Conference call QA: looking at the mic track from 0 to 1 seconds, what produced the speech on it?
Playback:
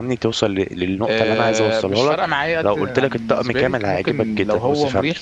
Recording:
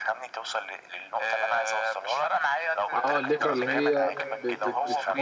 echo only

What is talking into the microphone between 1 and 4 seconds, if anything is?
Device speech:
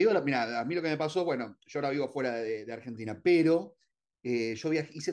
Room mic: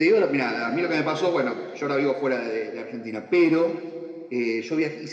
echo only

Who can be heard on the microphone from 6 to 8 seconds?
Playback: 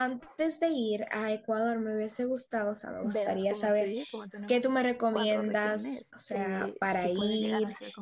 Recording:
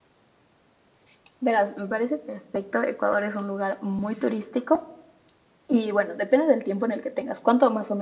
user only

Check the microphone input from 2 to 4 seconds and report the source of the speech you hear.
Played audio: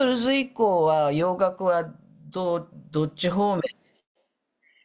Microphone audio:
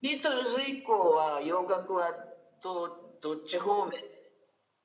echo only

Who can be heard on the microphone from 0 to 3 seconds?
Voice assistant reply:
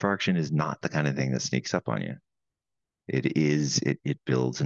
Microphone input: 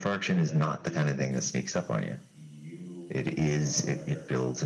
both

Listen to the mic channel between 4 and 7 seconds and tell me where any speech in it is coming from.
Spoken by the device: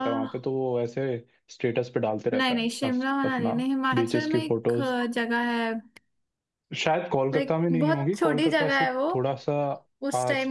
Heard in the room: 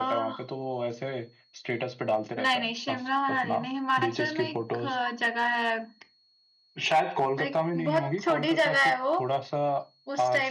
echo only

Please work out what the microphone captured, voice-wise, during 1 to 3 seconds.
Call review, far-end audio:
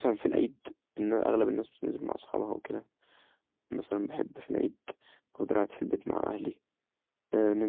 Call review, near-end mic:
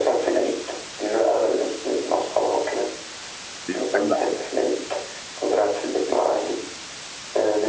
echo only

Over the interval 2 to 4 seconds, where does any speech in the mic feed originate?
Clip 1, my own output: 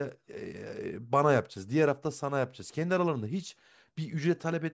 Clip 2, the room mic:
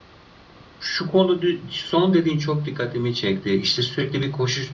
user only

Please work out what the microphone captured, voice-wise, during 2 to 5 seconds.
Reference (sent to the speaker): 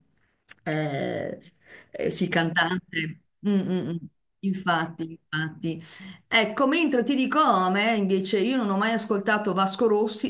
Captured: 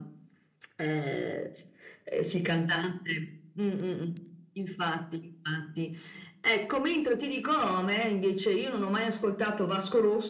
echo only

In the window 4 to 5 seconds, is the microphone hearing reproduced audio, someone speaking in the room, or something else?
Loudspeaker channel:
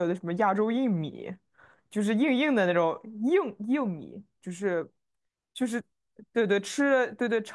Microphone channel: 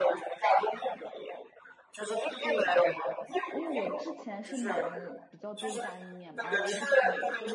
both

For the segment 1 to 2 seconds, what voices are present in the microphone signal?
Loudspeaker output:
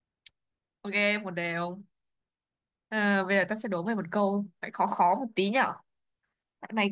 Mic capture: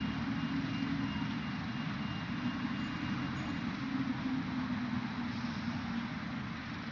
neither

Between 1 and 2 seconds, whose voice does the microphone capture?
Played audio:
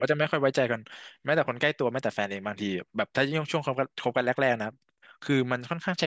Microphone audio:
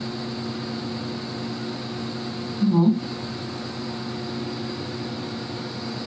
neither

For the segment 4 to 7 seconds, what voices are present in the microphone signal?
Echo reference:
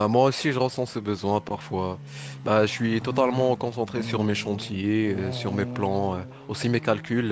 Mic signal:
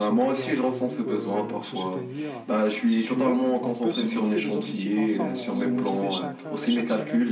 both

